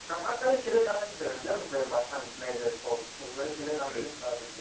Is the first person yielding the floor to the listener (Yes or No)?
Yes